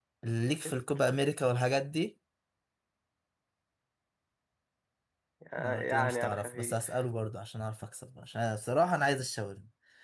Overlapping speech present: Yes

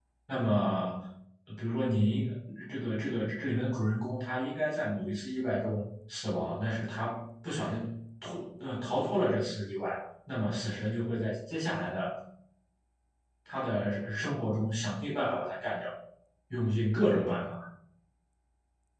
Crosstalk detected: No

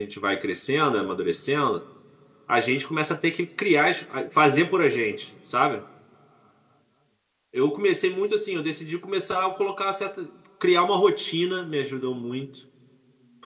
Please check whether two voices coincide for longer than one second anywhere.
No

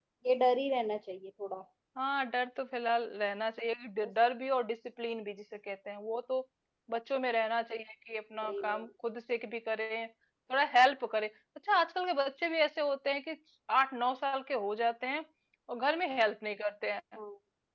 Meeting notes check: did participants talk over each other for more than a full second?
No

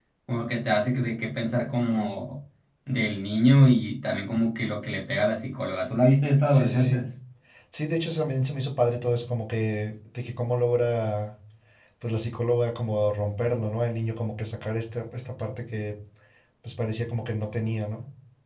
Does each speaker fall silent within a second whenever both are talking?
Yes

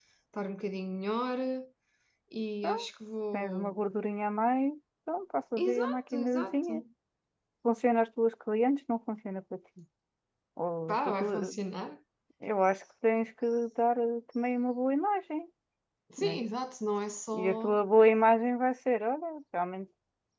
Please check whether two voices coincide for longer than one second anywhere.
Yes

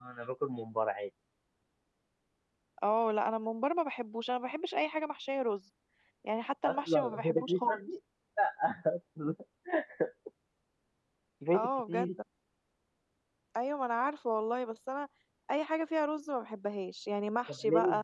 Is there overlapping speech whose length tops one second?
Yes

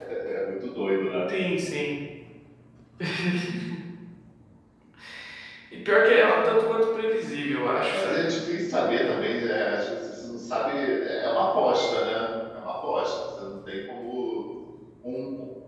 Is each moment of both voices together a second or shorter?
Yes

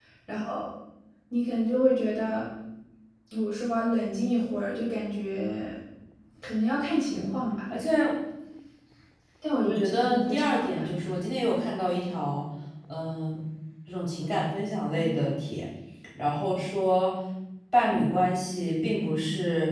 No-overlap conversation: No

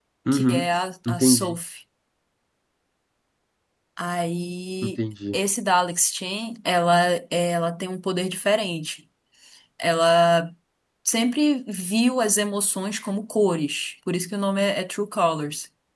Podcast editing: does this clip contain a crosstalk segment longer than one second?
No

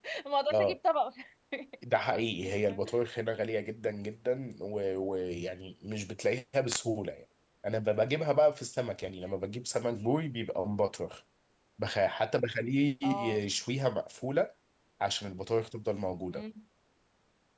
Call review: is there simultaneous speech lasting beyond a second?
No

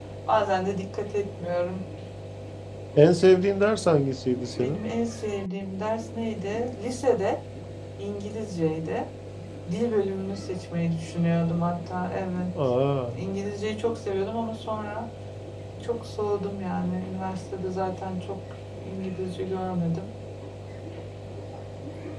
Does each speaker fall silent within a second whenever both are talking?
Yes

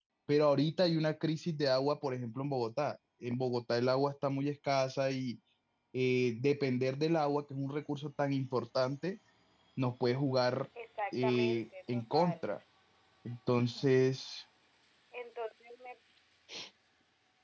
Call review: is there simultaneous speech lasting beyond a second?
Yes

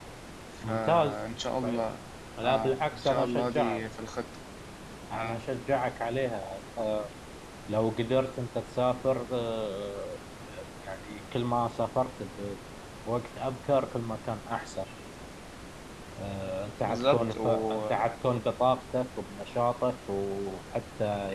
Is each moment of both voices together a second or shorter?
No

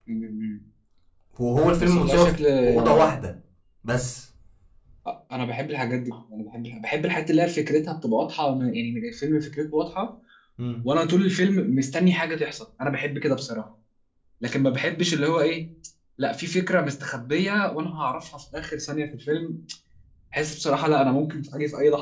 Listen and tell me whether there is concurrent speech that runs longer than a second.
Yes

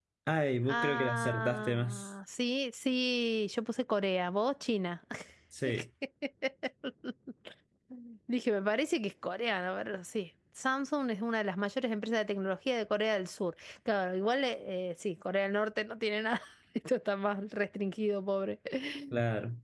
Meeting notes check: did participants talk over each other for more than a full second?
Yes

